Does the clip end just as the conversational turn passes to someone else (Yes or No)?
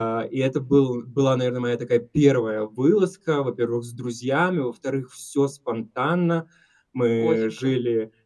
No